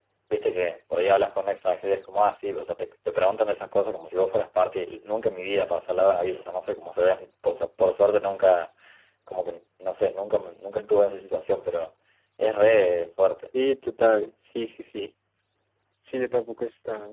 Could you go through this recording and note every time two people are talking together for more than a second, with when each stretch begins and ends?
none

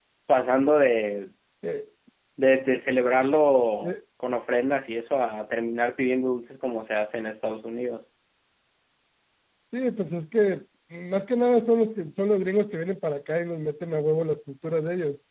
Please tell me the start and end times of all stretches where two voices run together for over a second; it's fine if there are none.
none

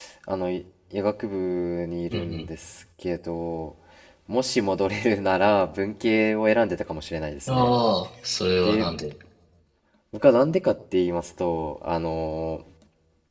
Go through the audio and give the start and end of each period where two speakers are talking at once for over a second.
none

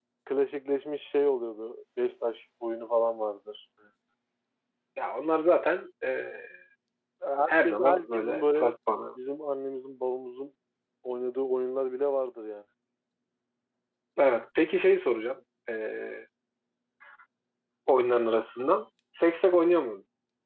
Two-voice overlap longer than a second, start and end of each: 7.5-8.7

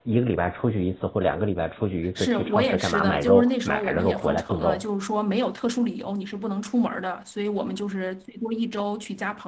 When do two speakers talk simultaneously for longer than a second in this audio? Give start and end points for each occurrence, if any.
2.1-4.8

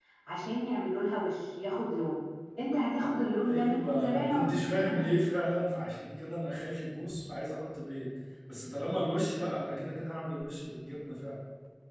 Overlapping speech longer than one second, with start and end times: 3.5-5.0

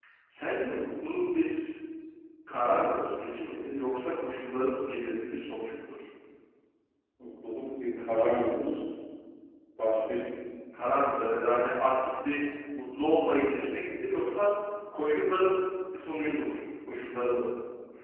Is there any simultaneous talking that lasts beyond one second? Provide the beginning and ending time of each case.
none

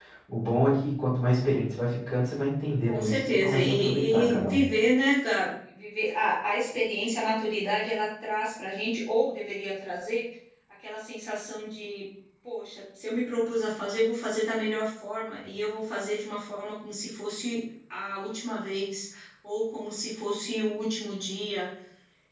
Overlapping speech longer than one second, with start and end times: 2.9-4.6

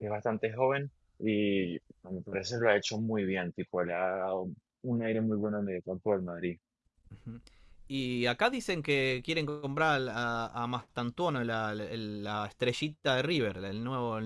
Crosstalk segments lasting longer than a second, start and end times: none

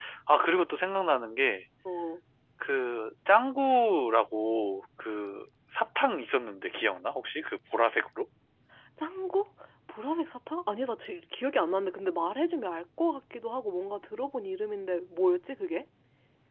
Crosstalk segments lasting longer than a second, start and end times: none

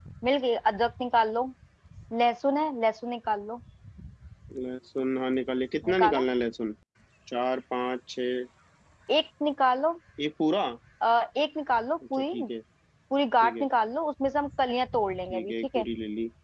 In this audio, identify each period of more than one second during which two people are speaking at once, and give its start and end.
none

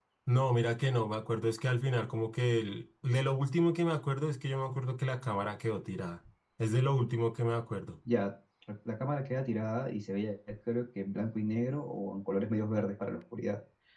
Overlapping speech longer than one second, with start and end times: none

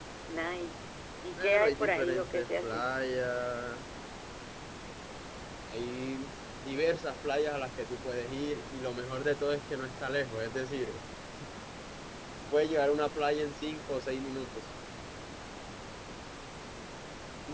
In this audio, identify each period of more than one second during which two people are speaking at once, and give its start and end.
1.4-2.8

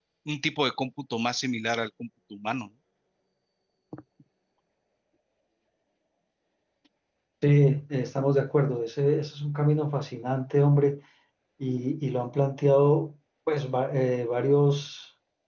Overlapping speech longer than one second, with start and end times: none

